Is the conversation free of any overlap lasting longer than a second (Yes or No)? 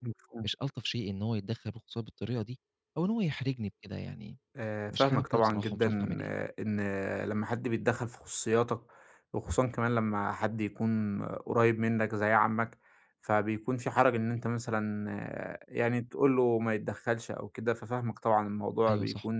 No